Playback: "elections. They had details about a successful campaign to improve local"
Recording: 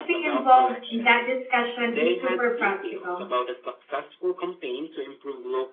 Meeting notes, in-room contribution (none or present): present